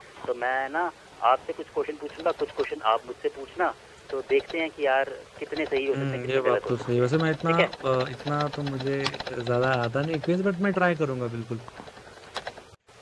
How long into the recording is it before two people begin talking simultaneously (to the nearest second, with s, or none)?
6 s